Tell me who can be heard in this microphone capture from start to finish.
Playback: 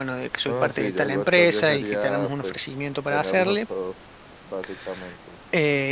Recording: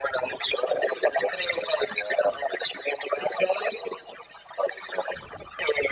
echo only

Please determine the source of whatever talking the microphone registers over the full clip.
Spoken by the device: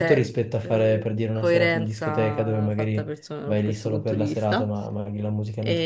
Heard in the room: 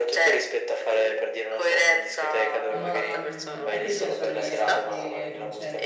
both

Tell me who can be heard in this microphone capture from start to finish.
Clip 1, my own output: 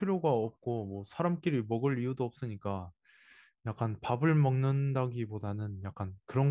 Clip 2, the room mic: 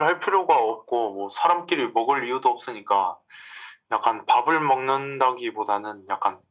echo only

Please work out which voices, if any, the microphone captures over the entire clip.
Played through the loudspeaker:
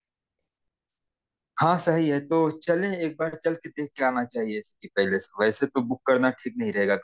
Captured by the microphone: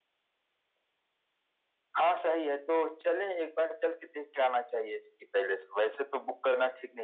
echo only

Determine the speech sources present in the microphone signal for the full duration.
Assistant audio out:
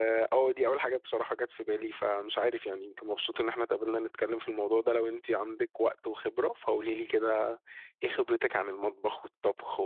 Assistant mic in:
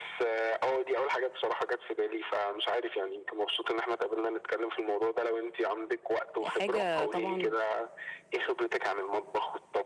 both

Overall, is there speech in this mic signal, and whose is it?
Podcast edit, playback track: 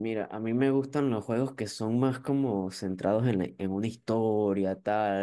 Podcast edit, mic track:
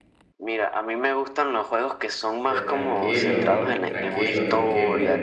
both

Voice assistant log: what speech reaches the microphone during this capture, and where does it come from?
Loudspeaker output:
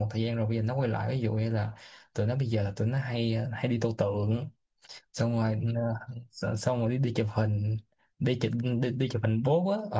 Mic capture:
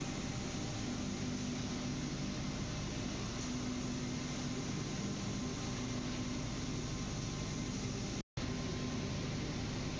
neither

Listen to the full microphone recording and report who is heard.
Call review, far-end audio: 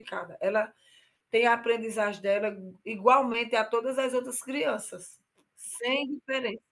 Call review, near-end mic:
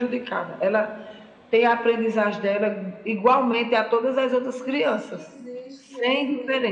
both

